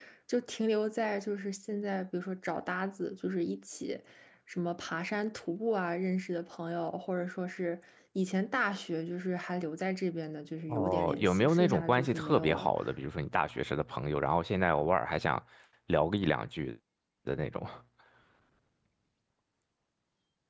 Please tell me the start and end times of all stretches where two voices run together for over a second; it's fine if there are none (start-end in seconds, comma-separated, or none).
10.7-12.7